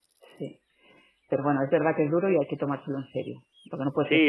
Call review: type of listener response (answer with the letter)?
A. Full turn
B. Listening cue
A